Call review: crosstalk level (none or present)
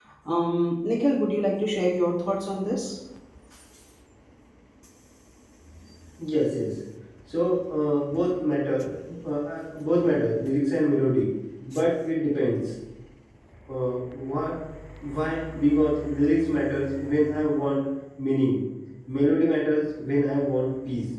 none